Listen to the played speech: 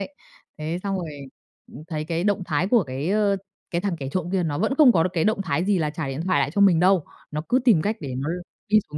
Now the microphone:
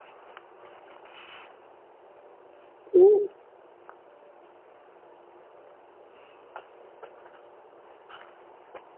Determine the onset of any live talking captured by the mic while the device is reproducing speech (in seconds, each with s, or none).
2.9 s